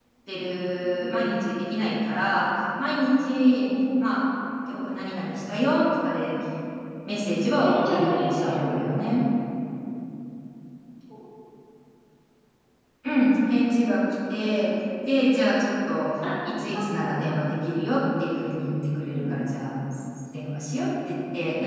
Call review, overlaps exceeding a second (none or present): present